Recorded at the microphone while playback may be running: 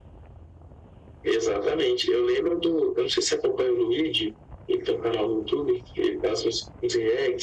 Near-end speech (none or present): none